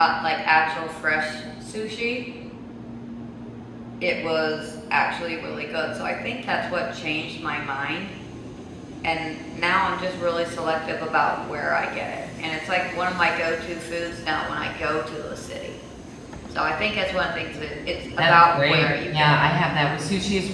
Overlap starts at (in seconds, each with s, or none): 18.2 s